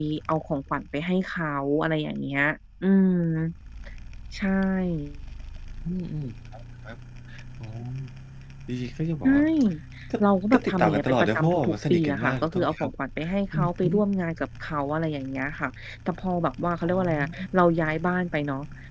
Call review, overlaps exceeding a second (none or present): present